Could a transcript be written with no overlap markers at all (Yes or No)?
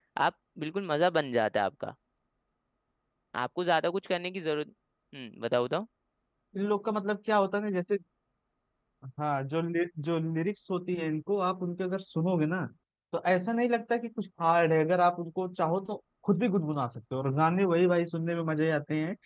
Yes